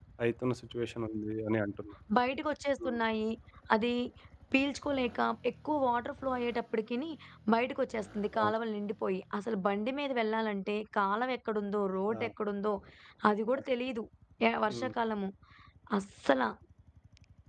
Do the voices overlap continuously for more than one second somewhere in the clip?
No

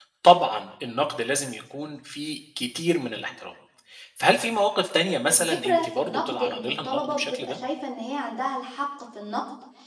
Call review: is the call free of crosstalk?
No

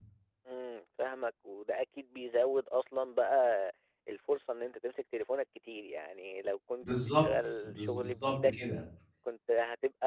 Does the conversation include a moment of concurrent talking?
Yes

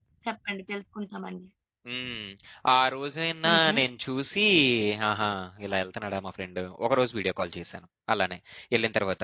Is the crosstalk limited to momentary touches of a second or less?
Yes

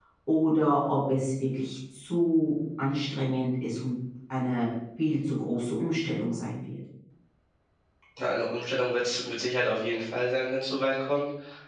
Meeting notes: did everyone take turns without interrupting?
Yes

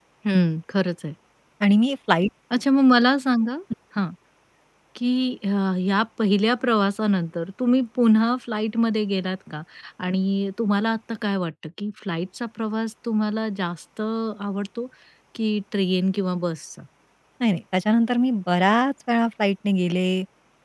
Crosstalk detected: No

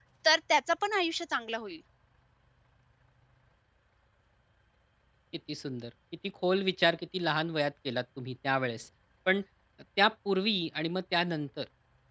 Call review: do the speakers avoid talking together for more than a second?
Yes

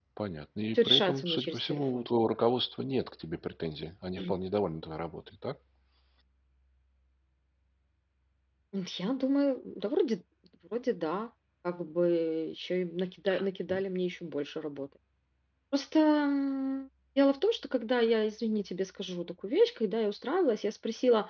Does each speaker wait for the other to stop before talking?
No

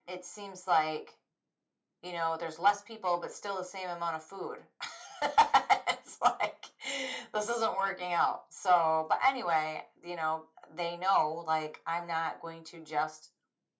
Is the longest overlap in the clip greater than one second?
No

